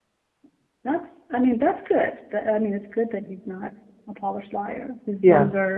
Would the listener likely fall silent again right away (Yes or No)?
Yes